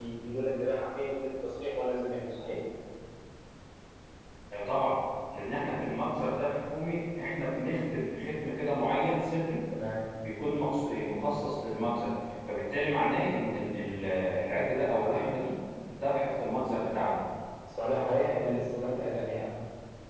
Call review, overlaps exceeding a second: none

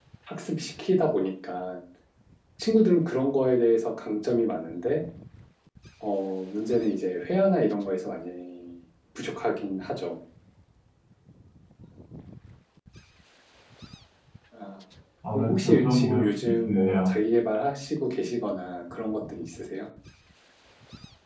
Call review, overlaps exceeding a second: present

